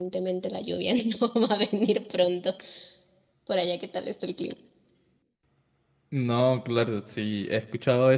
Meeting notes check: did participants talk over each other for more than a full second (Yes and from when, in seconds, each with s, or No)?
No